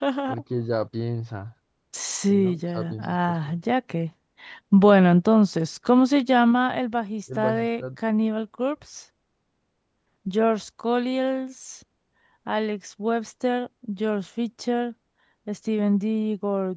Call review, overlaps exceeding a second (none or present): present